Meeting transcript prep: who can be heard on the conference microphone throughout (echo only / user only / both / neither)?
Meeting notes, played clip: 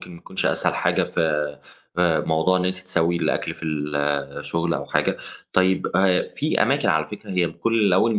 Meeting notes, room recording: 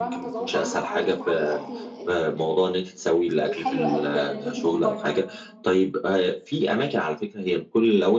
both